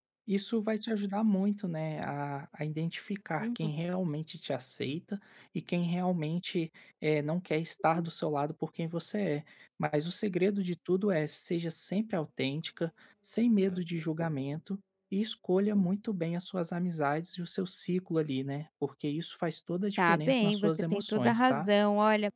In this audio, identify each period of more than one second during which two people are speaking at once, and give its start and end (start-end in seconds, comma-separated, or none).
20.0-21.7